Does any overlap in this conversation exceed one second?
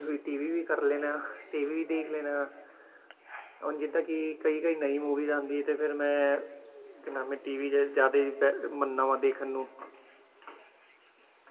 No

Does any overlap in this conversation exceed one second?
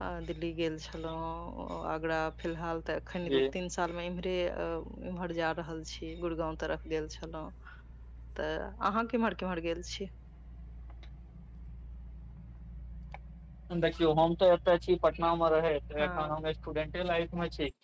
No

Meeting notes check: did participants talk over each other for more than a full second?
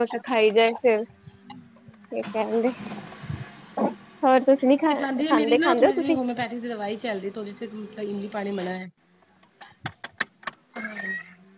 Yes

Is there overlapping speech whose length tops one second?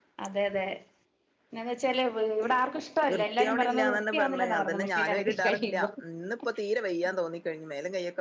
Yes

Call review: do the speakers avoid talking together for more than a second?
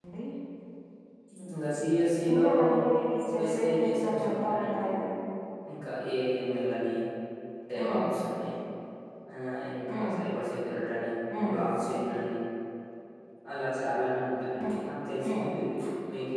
No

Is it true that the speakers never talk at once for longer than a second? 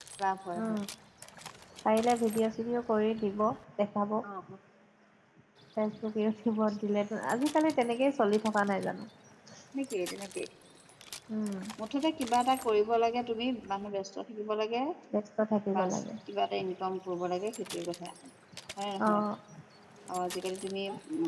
Yes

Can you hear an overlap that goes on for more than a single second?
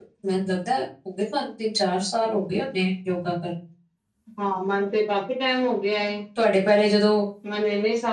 No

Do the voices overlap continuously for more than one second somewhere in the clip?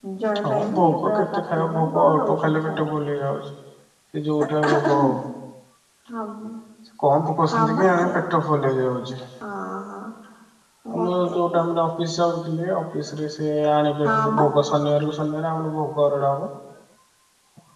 Yes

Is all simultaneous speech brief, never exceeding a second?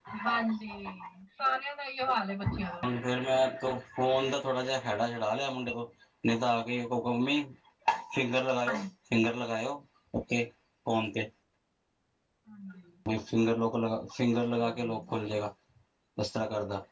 Yes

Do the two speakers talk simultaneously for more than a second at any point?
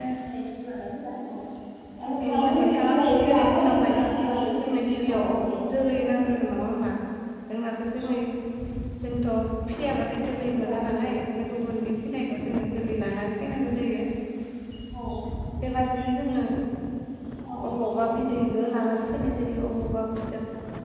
Yes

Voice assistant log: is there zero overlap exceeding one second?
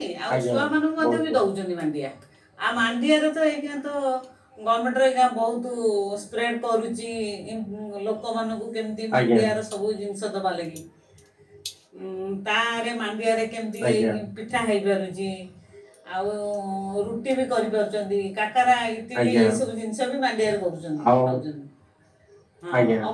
Yes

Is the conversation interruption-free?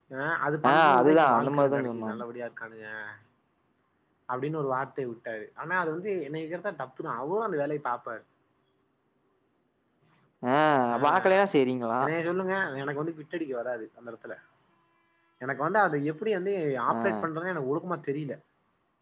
No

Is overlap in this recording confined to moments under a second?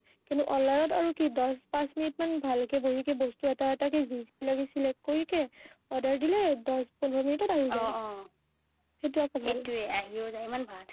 Yes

